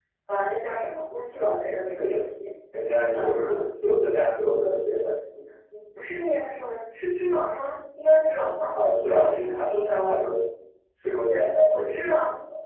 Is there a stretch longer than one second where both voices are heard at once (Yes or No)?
Yes